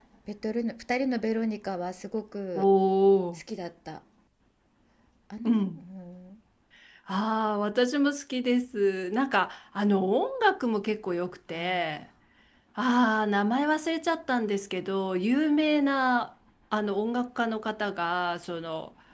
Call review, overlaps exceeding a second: none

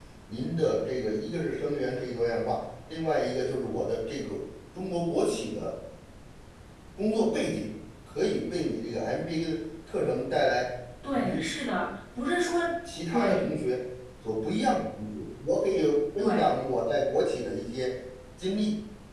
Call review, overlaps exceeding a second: none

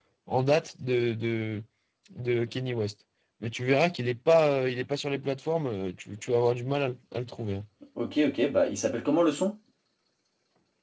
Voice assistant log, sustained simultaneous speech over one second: none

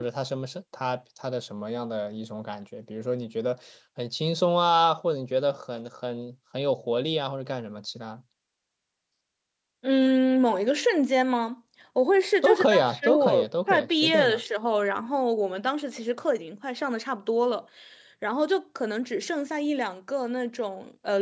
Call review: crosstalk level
present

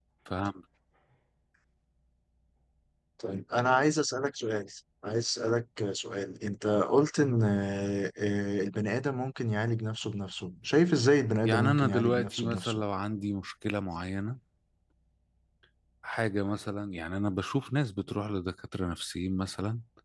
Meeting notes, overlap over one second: present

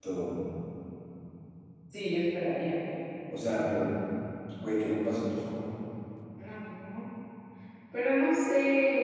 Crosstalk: none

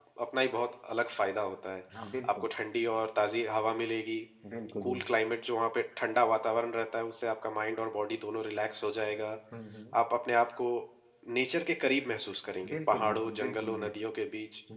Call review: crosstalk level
present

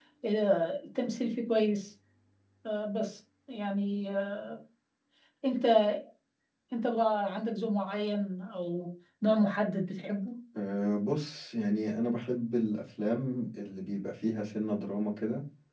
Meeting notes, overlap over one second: none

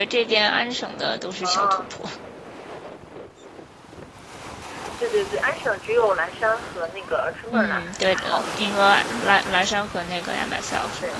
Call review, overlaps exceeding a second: present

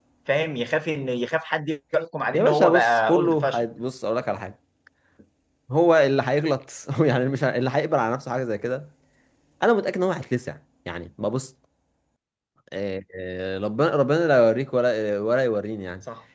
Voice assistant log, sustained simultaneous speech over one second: present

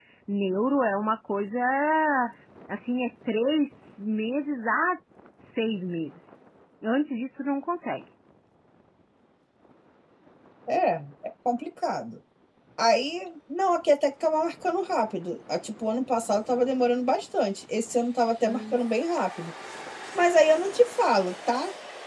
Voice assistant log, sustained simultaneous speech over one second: none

